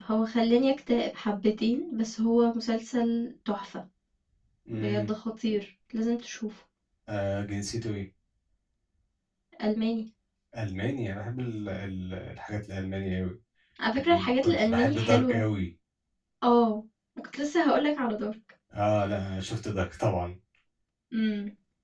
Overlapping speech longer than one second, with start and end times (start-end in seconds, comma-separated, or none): 14.0-15.4